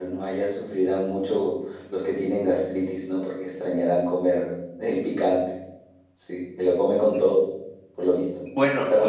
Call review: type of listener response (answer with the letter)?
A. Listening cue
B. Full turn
B